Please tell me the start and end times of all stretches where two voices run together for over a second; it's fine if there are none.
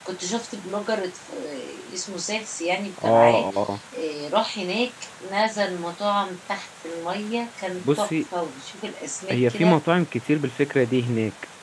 none

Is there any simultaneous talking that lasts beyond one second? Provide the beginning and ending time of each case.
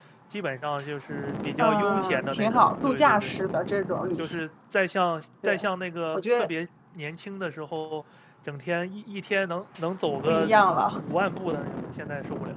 1.6-3.3

